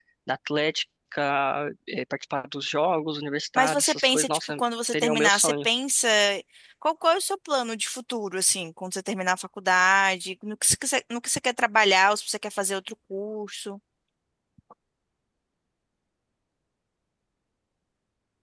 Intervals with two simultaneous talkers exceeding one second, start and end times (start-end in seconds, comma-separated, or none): 3.6-5.7